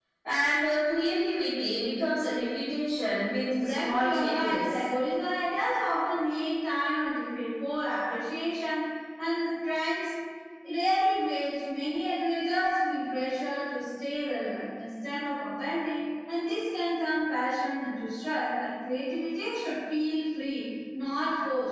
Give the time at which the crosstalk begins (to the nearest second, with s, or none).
3 s